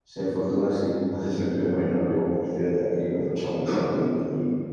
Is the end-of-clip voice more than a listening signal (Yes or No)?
No